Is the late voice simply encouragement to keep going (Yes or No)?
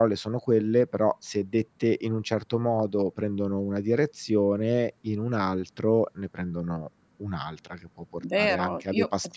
No